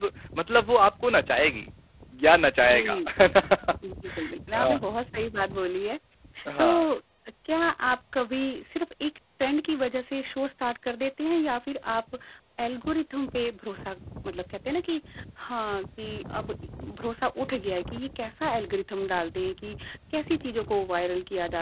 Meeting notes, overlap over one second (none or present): none